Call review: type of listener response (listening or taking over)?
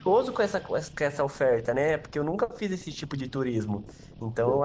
listening